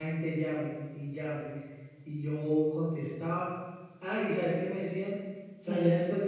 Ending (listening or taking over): listening